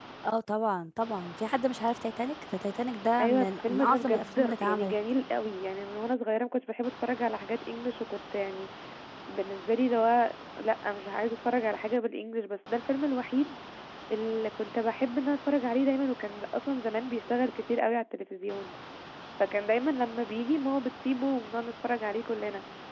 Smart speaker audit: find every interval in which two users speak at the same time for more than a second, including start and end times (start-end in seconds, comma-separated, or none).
3.2-5.0